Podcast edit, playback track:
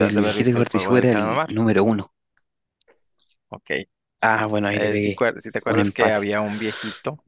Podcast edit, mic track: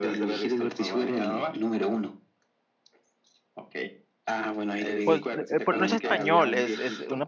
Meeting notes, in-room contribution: present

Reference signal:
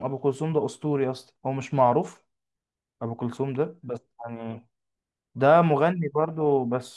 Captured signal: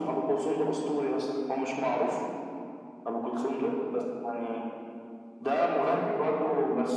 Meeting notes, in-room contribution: none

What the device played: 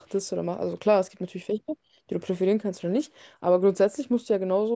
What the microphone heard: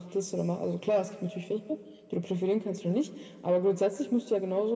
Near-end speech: none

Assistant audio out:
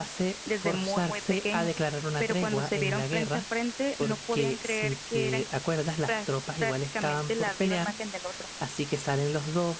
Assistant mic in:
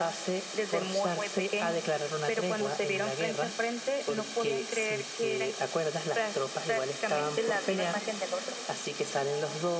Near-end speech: present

